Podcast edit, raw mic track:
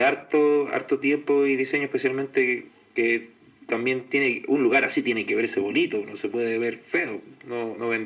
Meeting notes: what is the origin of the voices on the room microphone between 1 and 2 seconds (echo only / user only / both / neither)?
echo only